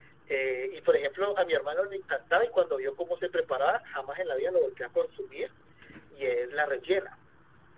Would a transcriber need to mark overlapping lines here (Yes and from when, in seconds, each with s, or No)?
No